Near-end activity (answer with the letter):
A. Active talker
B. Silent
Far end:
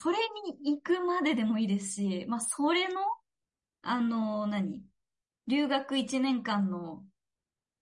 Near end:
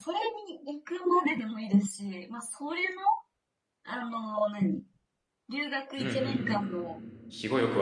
A